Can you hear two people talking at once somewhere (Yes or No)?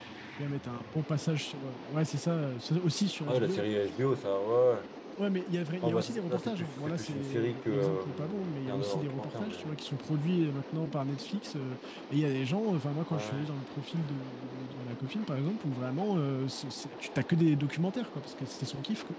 Yes